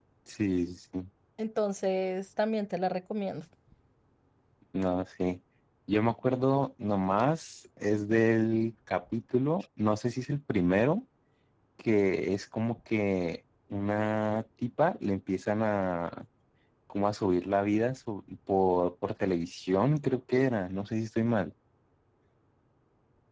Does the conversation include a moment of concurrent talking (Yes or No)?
No